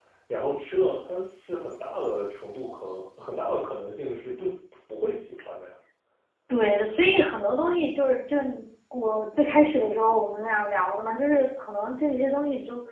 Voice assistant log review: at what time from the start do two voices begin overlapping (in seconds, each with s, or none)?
none